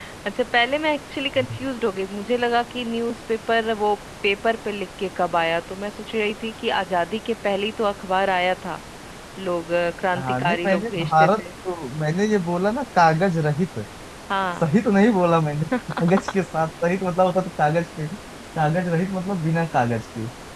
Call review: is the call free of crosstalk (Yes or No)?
No